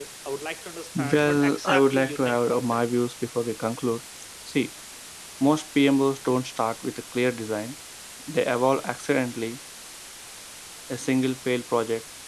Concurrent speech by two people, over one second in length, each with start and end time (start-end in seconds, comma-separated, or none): 1.1-2.8